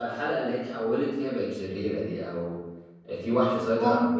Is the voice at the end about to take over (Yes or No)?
No